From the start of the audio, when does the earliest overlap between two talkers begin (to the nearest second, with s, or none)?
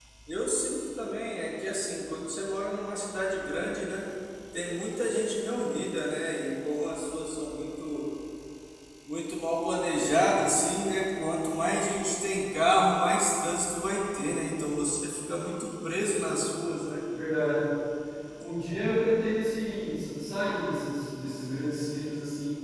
none